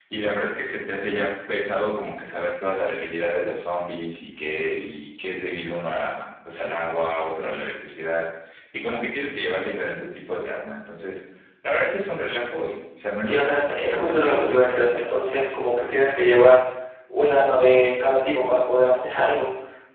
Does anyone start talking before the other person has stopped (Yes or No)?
Yes